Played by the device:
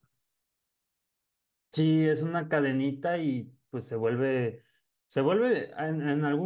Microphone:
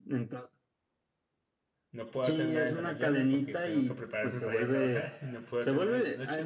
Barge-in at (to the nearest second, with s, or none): 2 s